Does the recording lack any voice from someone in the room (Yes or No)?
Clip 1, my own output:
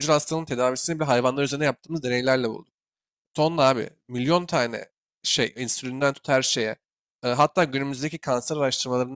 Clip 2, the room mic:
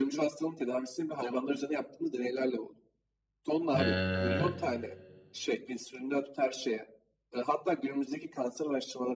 No